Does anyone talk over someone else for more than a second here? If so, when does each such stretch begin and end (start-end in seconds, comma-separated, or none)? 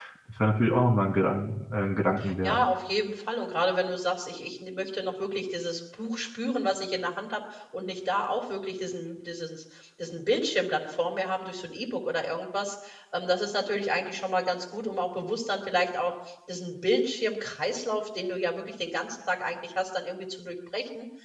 none